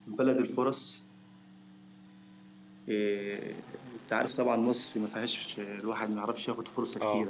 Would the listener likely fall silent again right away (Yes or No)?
Yes